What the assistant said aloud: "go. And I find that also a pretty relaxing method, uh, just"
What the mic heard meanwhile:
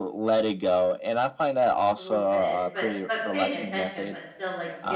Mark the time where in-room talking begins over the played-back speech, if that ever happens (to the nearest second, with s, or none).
2 s